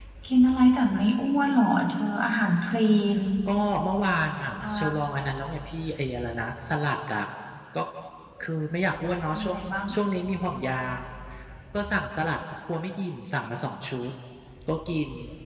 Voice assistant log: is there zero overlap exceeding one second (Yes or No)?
Yes